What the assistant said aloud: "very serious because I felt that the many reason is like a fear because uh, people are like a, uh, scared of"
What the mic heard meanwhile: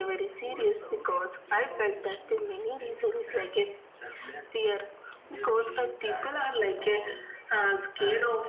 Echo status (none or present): present